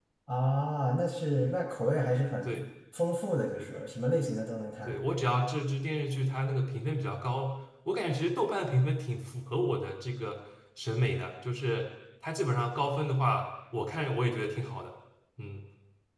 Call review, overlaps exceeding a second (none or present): none